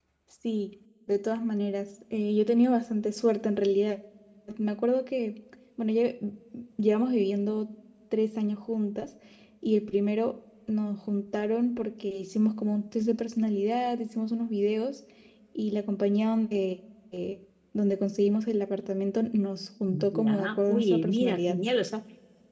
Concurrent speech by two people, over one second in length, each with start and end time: 19.9-21.6

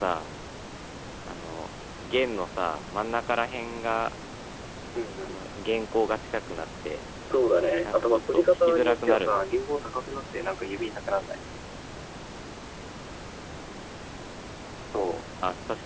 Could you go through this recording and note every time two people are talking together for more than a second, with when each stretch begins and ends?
7.8-9.6

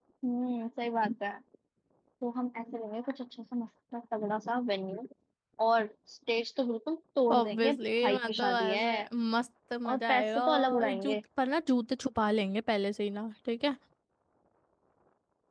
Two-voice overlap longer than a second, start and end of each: 7.3-8.8, 9.8-11.2

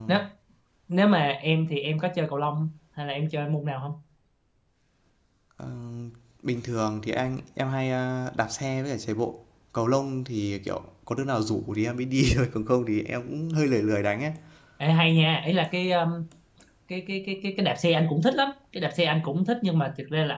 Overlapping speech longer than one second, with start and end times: none

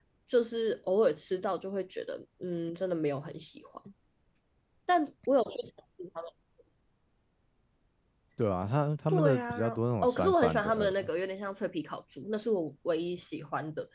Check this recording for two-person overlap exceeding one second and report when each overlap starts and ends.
9.1-11.1

